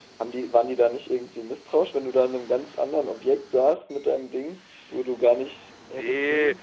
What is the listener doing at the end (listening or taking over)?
taking over